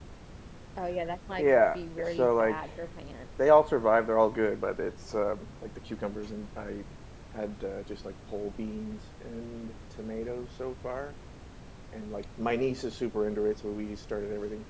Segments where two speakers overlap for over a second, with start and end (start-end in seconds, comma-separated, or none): 1.4-2.6